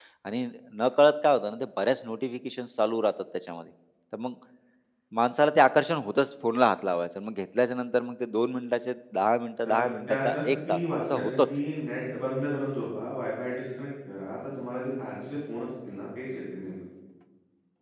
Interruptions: present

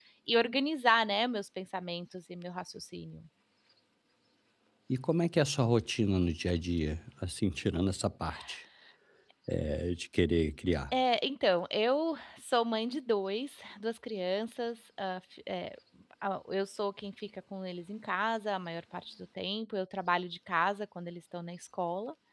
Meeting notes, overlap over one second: none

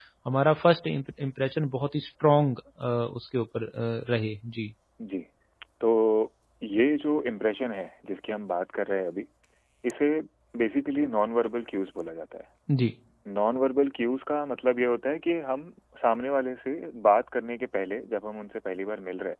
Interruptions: none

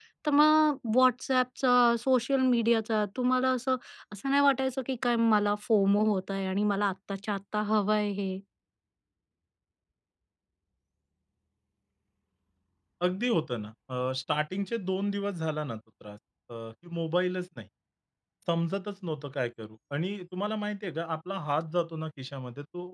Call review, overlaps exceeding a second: none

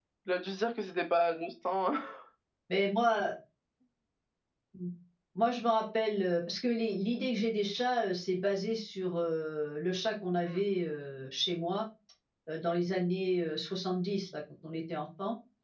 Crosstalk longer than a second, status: none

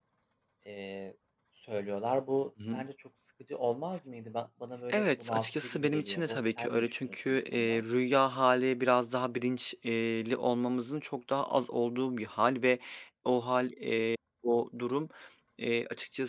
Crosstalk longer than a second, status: present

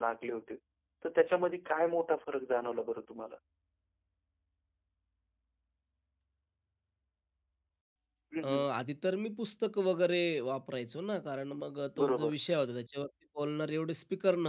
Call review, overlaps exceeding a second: none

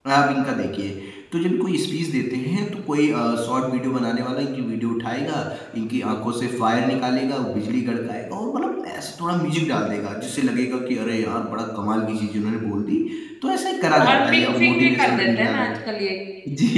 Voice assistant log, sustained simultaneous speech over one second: present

